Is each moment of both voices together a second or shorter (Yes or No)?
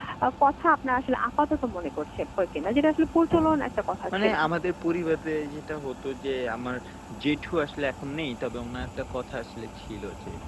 Yes